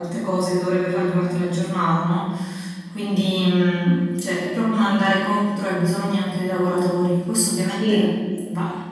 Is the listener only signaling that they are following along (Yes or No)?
Yes